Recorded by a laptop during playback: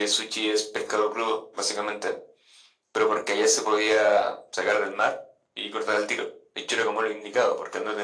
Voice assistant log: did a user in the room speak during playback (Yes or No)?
No